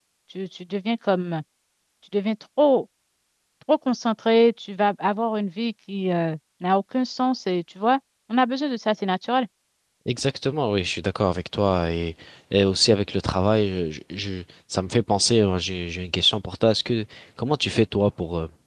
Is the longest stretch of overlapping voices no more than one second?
Yes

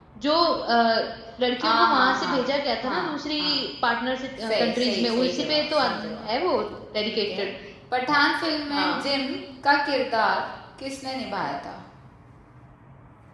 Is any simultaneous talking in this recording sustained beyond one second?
Yes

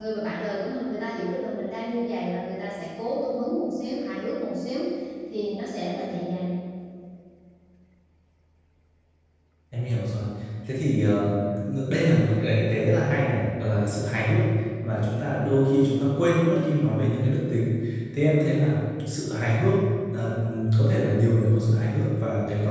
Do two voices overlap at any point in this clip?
No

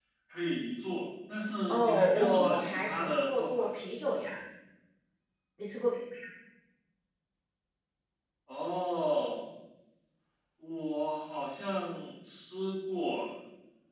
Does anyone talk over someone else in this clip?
Yes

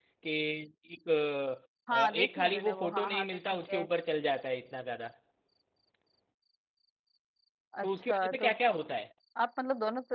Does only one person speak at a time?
No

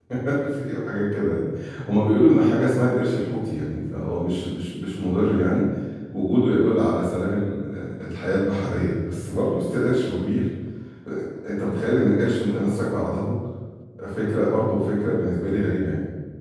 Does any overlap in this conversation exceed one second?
No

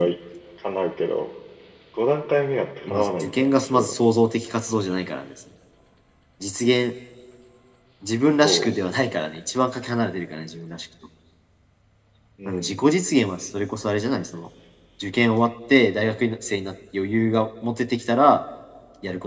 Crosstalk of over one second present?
Yes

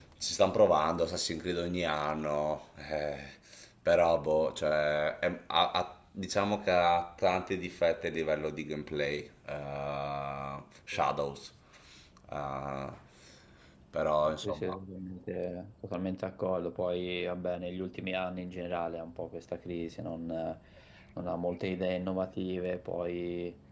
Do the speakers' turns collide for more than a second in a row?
No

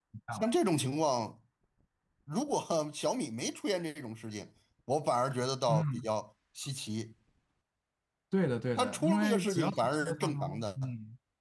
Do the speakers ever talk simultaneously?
Yes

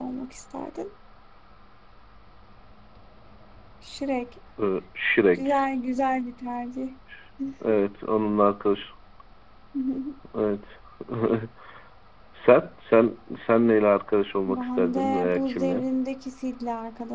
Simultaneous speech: Yes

